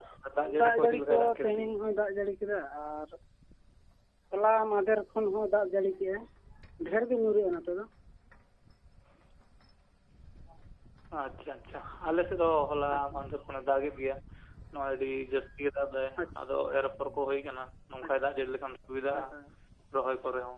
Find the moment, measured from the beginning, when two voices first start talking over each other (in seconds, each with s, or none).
0.6 s